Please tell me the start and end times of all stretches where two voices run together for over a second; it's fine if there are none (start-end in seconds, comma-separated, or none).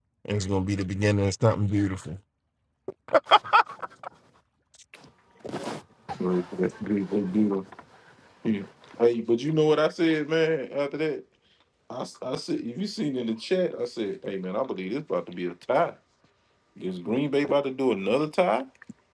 none